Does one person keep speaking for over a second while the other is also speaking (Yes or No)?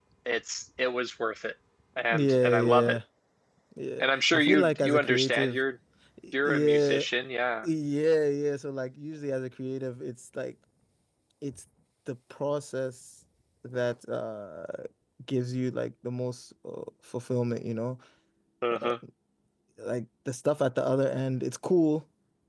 Yes